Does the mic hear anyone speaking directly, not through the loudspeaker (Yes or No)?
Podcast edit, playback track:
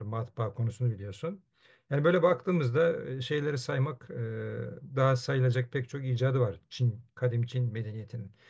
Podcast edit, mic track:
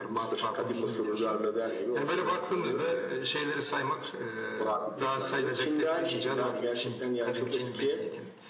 Yes